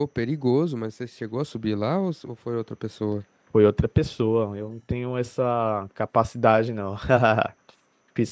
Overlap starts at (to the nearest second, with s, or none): none